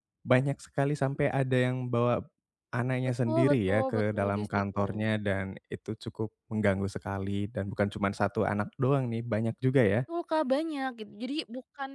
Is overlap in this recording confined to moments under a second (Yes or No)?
No